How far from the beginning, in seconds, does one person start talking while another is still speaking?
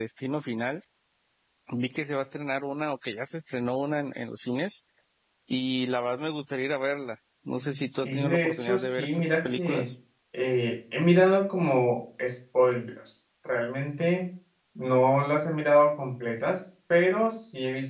7.9 s

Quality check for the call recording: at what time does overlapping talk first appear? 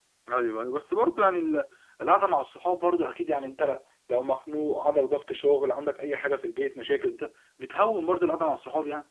none

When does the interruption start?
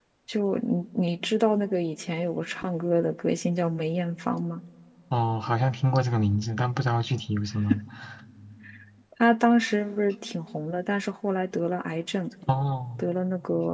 none

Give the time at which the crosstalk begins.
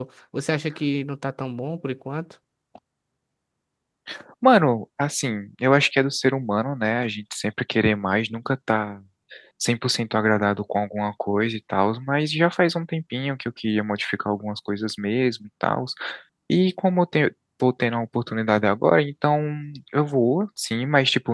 none

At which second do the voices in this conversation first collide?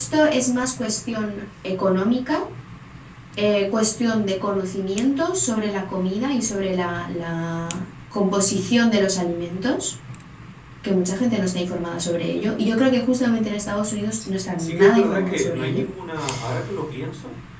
14.6 s

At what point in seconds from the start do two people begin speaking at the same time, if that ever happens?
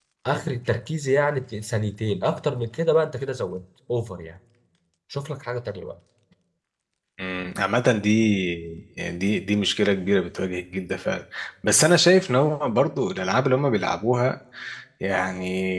none

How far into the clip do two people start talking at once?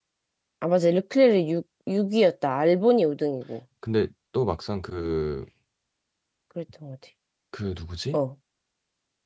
none

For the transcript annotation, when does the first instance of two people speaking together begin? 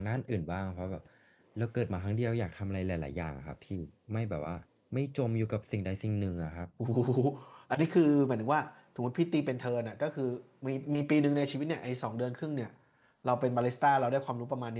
none

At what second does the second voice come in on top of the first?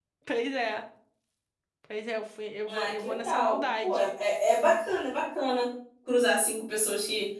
2.7 s

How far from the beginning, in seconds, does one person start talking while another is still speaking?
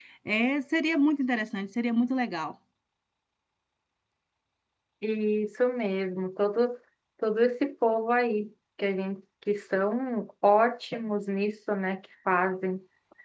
none

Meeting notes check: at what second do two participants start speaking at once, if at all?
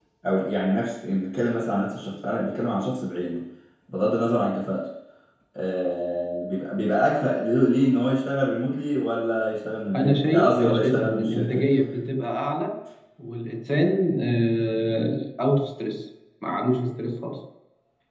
9.9 s

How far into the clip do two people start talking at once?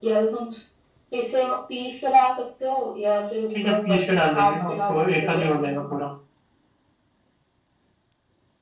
3.5 s

